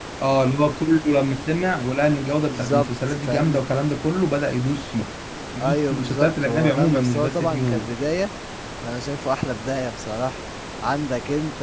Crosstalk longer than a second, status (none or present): present